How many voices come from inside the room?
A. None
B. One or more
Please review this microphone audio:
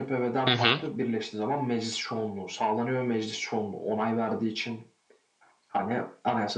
B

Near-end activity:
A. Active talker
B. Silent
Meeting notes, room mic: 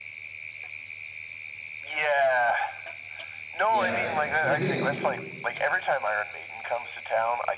A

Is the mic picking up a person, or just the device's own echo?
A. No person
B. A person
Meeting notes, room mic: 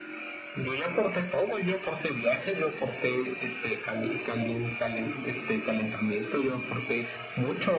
A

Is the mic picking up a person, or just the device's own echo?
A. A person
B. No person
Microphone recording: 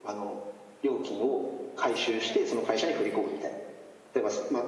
A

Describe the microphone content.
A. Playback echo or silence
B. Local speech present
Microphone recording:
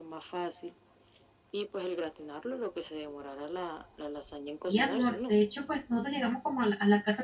B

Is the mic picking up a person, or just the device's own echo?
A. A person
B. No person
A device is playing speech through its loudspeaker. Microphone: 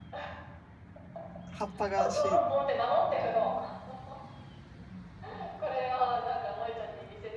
A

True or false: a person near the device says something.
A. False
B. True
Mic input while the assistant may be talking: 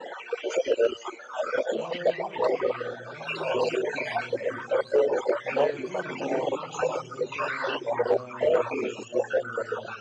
B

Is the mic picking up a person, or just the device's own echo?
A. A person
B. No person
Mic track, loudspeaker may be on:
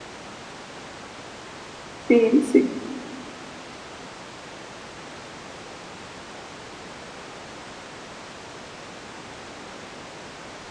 A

